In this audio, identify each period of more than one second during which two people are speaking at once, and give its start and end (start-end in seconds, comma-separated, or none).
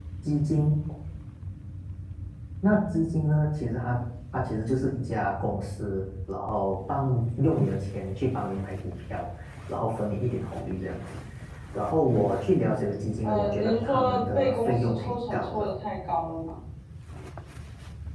13.2-15.7